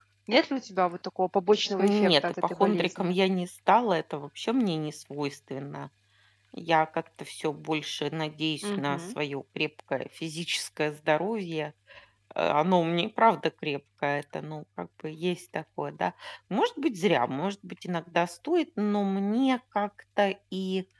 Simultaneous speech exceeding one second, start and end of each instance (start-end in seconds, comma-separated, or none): 1.8-3.2